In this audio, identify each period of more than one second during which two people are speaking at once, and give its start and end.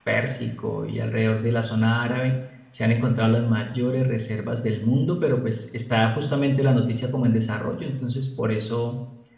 none

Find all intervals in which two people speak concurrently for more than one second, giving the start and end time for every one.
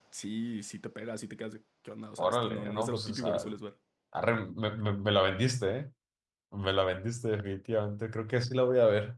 2.2-3.5

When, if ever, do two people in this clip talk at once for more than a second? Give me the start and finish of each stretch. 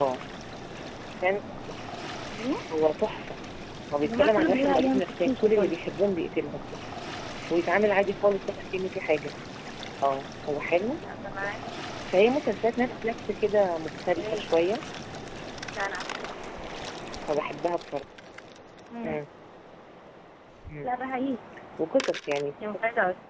4.0-5.8

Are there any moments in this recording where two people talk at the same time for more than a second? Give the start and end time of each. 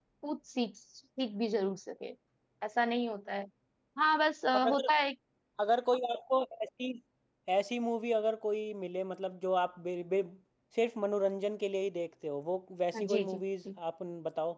none

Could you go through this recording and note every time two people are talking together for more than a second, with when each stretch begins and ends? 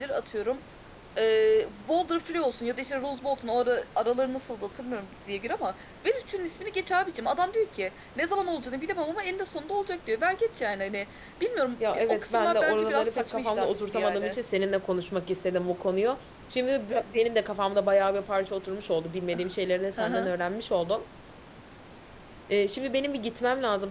11.9-14.4

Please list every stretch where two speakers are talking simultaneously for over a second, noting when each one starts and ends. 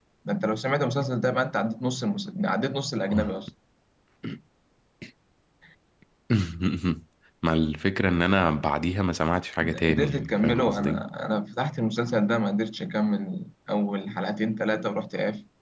9.6-11.0

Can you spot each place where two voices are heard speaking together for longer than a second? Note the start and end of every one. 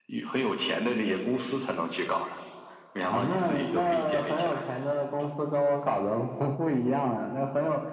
3.1-4.6

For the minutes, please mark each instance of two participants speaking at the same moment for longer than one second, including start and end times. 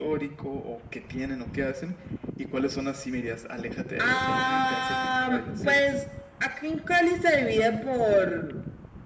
4.0-5.8

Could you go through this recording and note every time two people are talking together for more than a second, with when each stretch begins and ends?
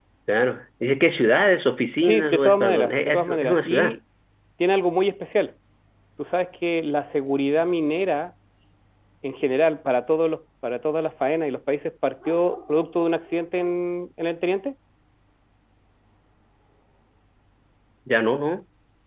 2.0-4.0

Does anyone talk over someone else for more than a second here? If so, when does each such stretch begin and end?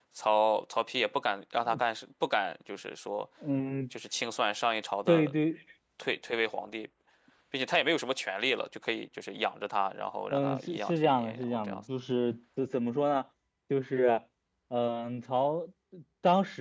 10.3-11.8

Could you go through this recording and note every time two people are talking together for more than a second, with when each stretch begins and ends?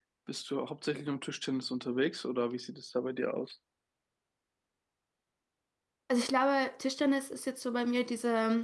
none

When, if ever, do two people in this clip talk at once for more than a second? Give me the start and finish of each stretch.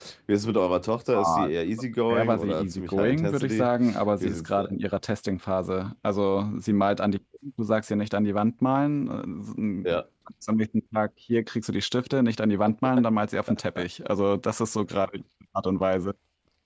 2.1-3.7

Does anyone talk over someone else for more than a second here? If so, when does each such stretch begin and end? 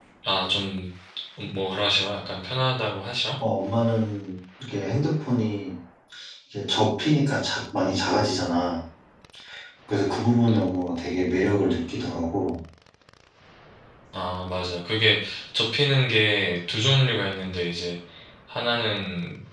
none

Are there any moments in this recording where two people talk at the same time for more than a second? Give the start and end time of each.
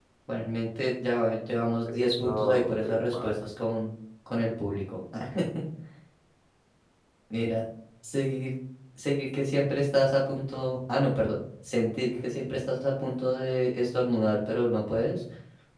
1.9-3.4

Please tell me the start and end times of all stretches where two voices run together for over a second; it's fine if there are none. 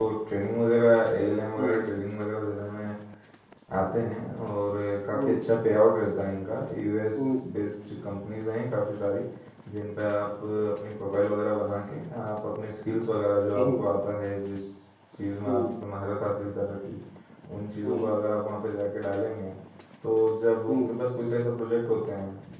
none

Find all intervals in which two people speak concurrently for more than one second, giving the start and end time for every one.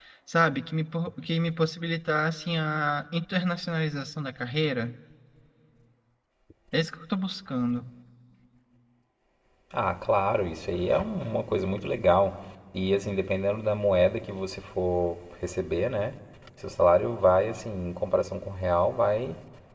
none

